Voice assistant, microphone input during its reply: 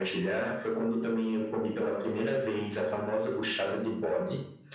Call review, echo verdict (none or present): present